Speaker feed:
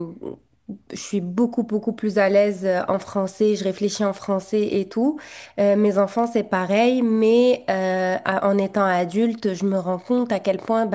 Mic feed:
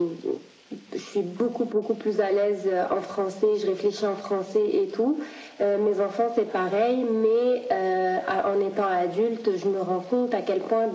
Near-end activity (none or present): none